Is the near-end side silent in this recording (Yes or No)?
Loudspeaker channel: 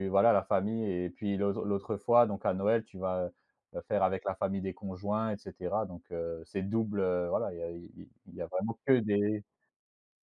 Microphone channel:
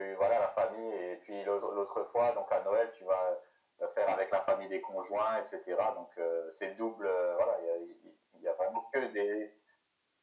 Yes